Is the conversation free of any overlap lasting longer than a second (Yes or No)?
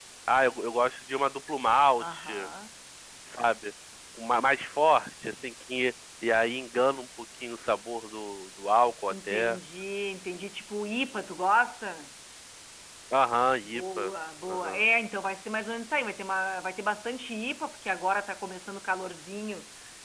Yes